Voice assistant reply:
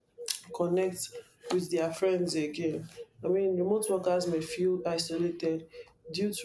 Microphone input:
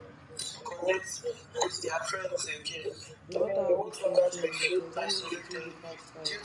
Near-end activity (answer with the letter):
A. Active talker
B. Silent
A